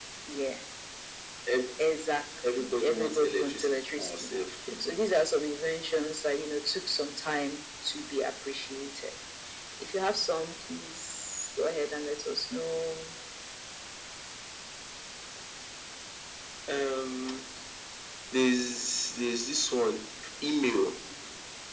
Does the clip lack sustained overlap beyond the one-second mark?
No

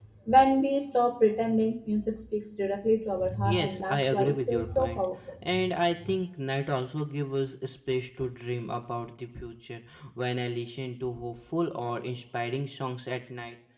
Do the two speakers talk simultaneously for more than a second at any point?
Yes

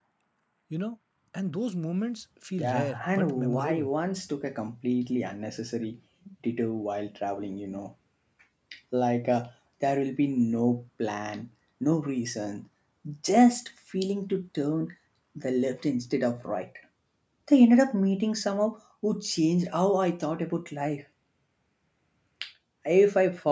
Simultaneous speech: Yes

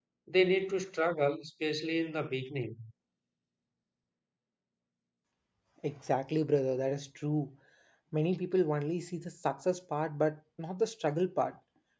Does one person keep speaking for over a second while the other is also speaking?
No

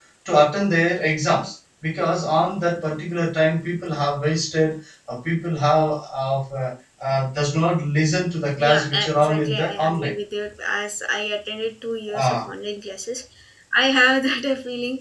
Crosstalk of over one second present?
Yes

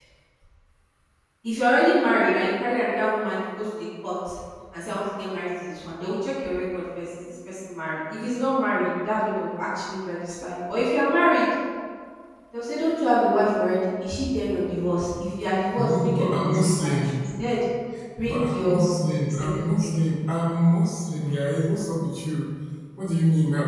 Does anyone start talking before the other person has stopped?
Yes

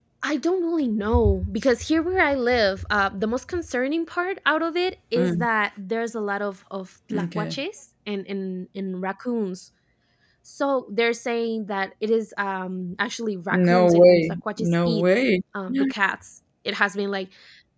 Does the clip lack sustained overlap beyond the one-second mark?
No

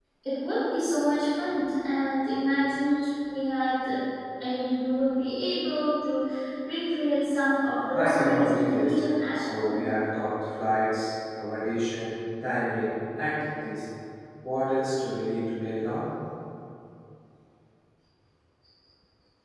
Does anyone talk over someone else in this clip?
Yes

